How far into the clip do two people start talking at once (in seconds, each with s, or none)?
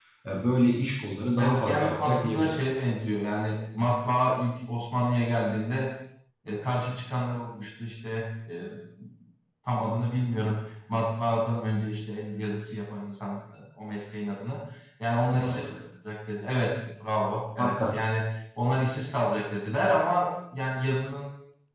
1.4 s